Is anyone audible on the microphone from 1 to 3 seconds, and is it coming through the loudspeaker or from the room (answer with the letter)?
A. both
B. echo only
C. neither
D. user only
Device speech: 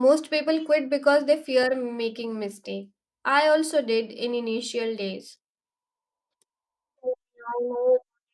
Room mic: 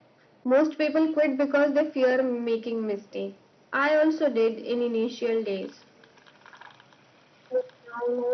B